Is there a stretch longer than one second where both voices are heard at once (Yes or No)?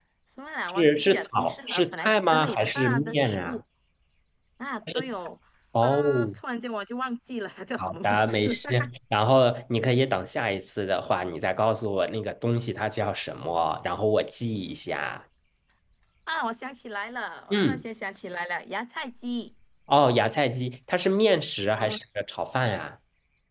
Yes